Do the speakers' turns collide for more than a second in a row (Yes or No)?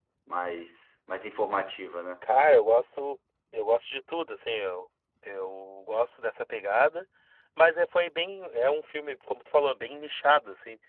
No